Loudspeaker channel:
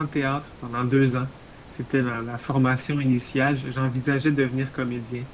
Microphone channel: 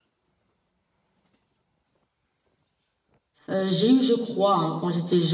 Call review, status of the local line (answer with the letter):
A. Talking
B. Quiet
A